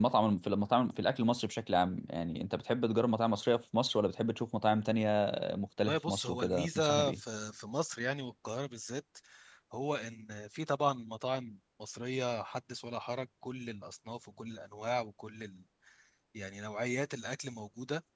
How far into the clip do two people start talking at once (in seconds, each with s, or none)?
5.8 s